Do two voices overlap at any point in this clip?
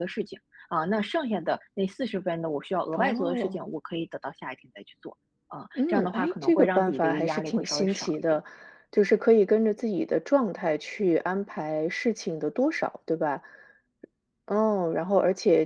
Yes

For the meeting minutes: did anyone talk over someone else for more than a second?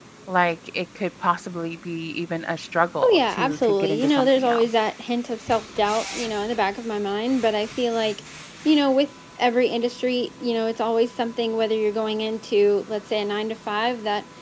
Yes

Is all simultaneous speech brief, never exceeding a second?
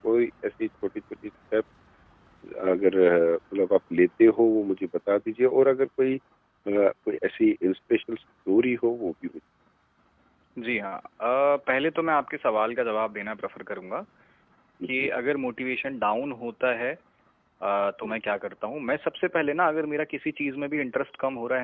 Yes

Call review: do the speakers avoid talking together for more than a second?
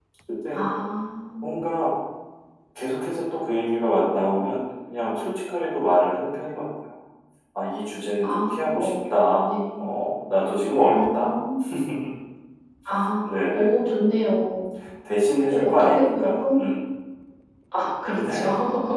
No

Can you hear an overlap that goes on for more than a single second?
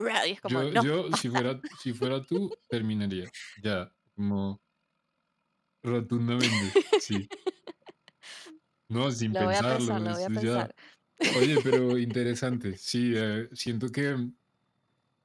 Yes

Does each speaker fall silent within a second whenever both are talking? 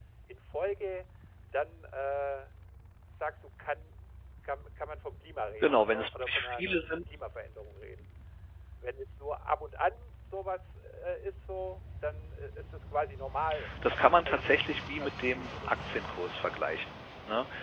No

